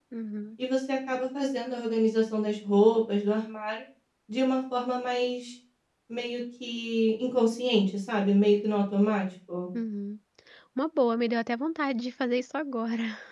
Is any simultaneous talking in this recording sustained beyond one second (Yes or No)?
No